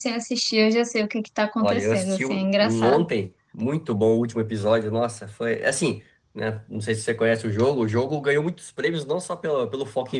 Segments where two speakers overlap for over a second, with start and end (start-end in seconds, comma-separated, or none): 1.6-3.0